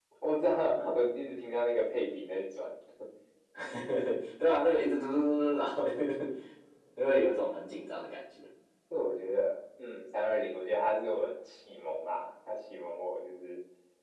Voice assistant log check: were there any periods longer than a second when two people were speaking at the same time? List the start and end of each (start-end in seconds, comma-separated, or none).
none